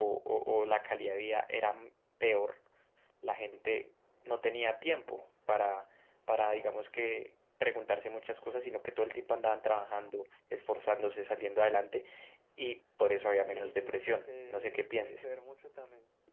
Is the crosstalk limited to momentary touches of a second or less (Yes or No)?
No